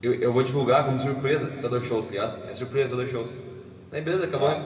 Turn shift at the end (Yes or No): No